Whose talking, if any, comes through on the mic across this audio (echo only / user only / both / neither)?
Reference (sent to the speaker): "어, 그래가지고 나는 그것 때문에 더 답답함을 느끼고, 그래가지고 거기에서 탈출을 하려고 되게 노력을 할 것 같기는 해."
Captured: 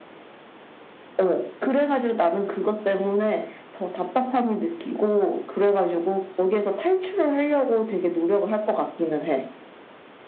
echo only